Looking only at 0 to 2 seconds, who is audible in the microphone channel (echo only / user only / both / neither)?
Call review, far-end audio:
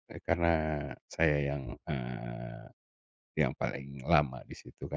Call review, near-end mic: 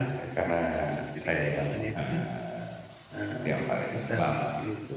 both